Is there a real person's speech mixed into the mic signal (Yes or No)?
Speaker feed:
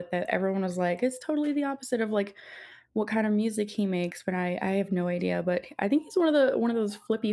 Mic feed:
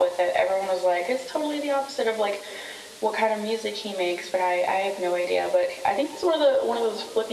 No